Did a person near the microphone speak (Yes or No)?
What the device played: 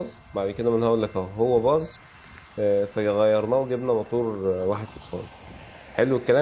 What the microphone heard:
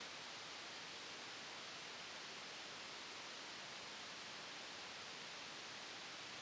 No